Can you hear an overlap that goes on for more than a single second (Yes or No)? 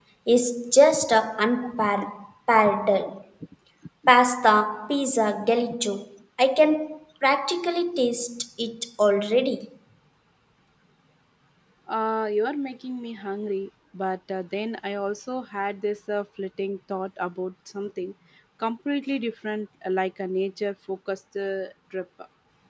No